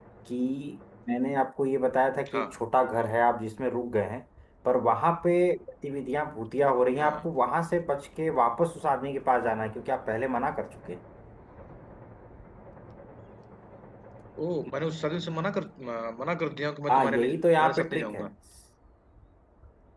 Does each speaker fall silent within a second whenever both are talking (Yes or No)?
No